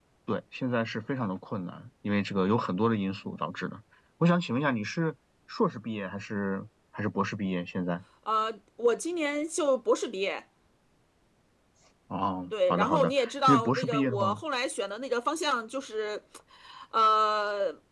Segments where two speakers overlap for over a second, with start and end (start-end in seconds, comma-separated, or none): 12.7-14.3